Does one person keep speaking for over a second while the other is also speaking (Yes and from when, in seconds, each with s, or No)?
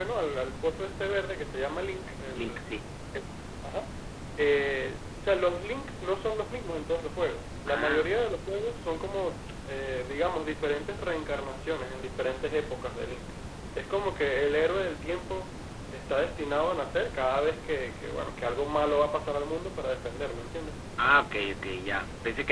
No